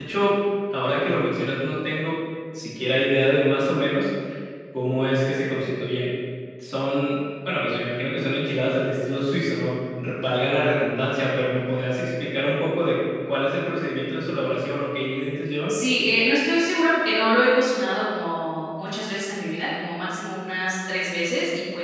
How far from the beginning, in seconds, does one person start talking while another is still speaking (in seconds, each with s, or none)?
none